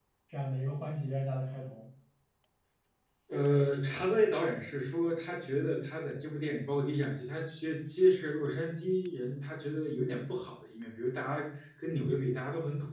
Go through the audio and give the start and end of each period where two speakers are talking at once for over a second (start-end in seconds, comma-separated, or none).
none